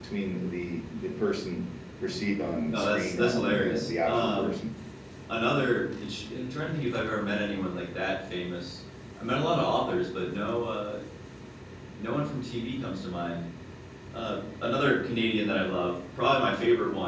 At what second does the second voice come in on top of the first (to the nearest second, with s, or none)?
3 s